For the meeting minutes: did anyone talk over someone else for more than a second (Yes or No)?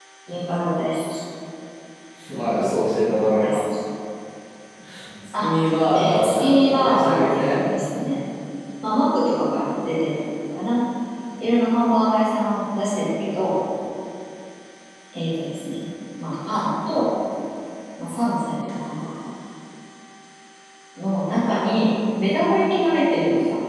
Yes